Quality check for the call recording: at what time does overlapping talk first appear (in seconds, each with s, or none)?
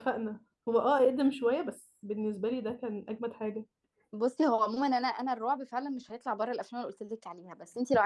none